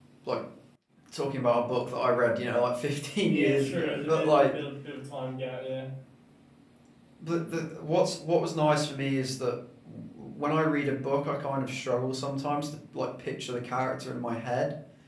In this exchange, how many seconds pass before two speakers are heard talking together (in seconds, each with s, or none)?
3.2 s